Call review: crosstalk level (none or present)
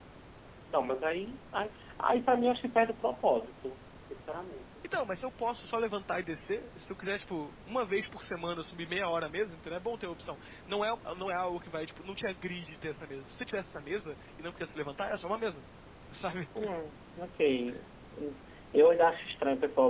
none